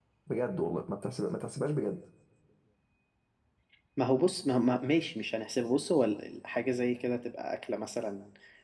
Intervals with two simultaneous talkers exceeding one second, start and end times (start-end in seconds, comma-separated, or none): none